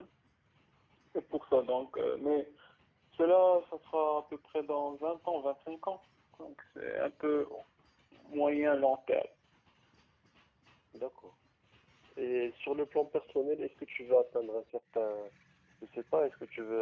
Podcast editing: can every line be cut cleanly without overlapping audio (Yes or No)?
Yes